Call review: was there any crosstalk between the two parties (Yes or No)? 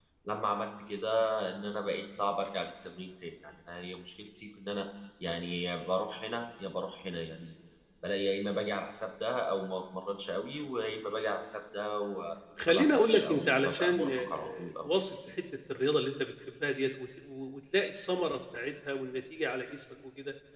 Yes